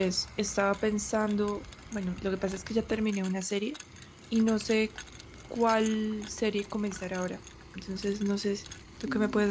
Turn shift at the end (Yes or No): Yes